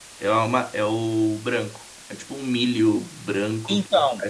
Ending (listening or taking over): taking over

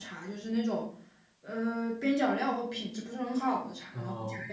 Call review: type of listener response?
listening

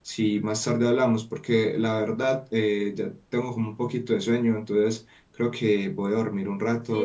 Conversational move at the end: taking over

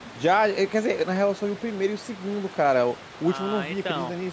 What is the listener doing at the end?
taking over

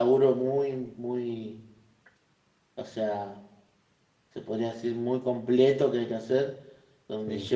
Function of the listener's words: listening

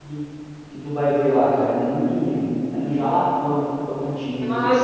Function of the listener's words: taking over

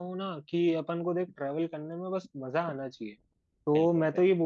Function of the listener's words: listening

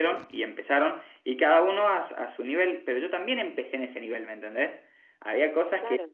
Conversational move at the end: listening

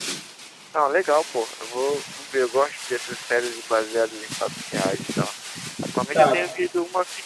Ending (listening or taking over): listening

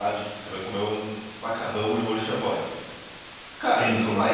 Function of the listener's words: listening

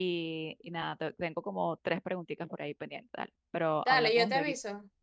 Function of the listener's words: taking over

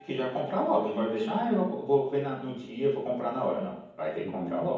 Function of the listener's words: taking over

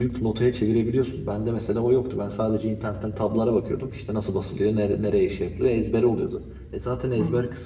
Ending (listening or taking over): listening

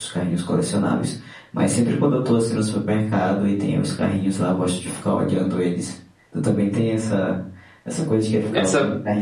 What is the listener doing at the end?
listening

